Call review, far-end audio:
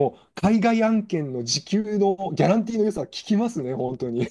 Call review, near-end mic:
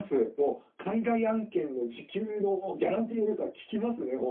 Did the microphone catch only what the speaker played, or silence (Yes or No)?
Yes